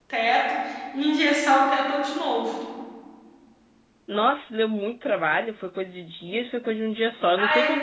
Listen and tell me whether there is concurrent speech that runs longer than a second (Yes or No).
No